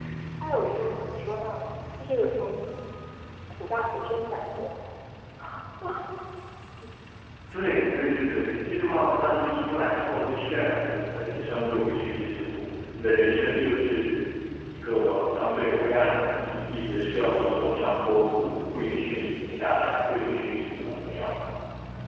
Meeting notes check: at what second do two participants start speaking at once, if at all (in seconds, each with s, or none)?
none